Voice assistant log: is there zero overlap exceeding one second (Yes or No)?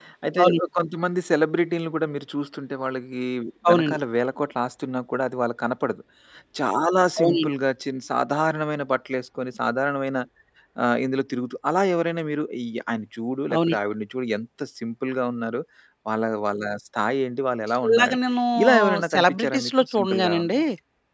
No